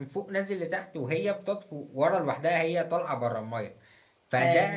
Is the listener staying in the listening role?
Yes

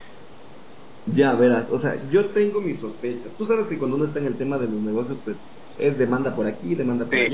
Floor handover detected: Yes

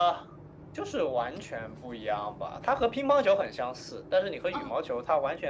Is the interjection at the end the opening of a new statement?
No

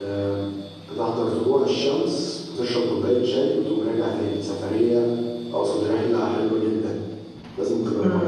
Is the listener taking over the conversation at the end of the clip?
Yes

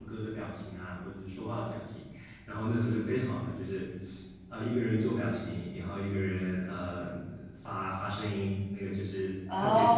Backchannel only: No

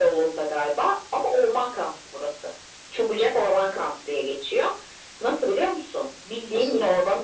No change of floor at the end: Yes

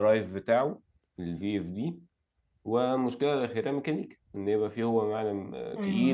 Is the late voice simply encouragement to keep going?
No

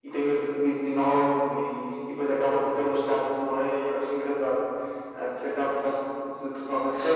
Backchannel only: No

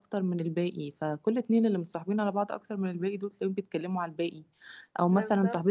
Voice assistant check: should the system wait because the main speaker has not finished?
Yes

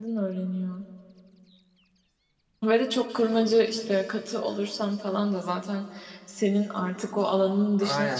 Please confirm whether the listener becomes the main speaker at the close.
Yes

